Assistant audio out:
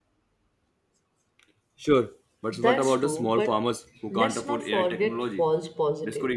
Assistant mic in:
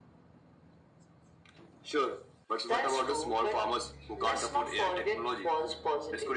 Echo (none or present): present